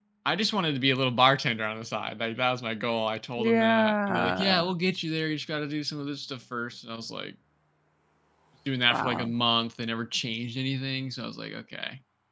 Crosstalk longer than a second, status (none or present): present